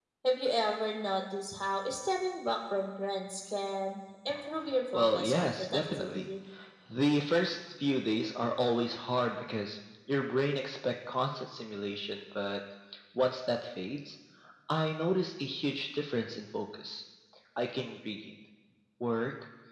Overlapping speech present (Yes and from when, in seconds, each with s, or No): Yes, from 4.9 s